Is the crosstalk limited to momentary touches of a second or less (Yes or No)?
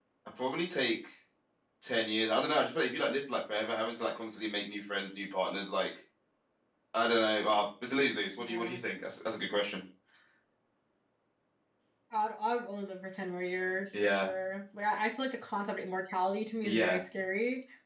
Yes